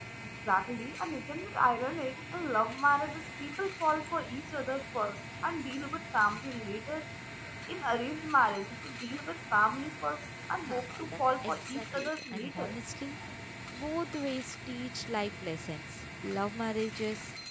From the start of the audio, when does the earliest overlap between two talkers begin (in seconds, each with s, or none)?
10.7 s